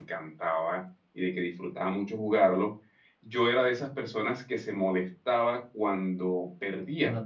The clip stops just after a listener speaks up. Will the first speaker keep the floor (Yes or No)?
Yes